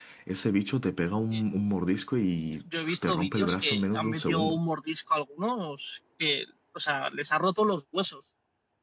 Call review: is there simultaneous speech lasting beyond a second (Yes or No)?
Yes